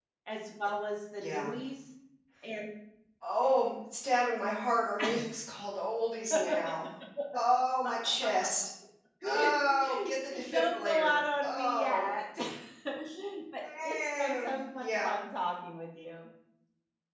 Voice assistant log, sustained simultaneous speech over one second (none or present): present